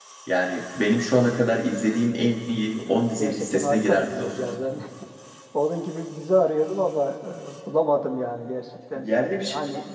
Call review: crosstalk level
present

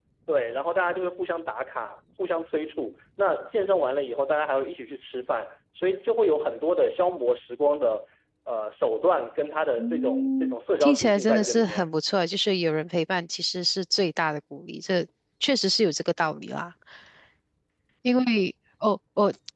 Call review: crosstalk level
present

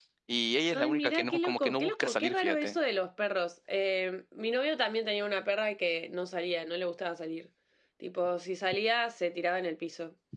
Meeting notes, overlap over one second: present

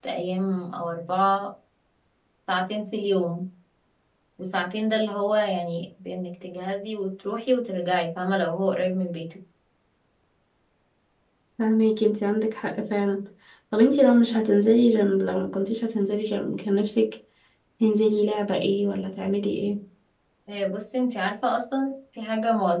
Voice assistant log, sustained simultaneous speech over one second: none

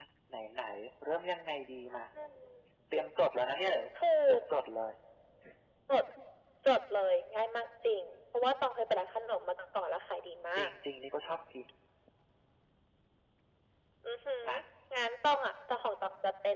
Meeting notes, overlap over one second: none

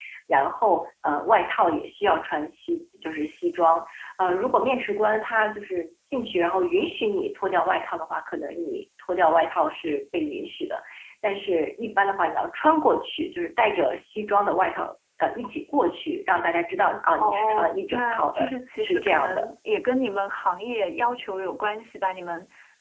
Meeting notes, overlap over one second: present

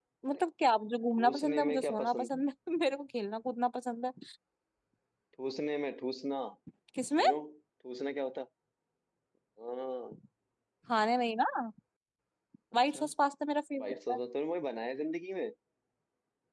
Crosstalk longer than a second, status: present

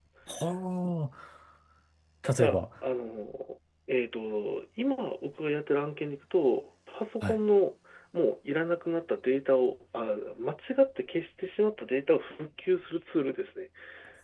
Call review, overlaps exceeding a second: none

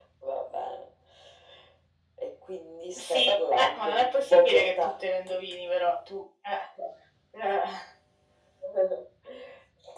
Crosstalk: present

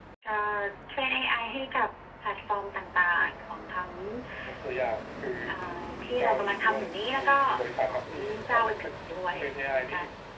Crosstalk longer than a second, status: present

